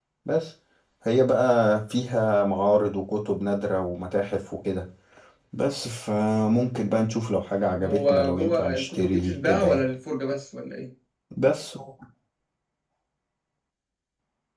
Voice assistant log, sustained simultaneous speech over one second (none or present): present